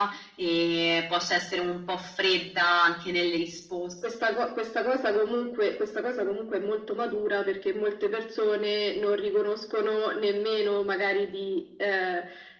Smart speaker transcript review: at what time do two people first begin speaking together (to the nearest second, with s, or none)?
none